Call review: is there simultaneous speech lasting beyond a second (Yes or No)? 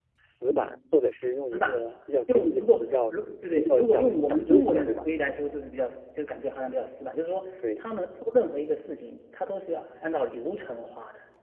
Yes